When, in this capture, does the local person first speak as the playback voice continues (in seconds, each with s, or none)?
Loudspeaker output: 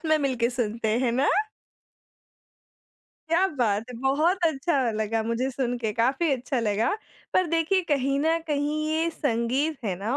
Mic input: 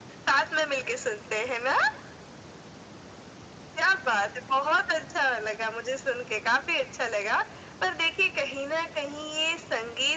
none